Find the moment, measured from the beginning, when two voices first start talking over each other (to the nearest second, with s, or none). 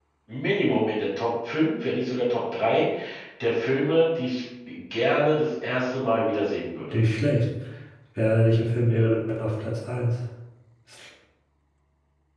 none